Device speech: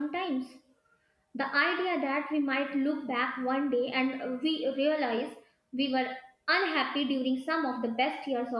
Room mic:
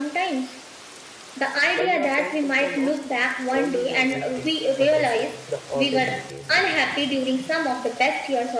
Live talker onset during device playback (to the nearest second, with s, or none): 2 s